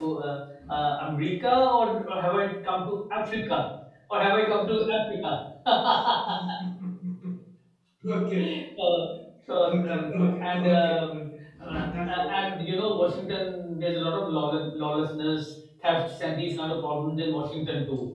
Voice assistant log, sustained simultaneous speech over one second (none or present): present